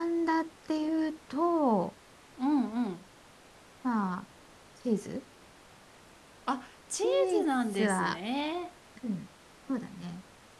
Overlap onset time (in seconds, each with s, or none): 6.9 s